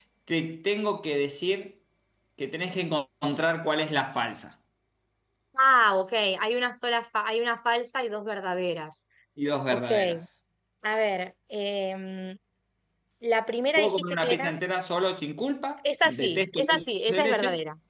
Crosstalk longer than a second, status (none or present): present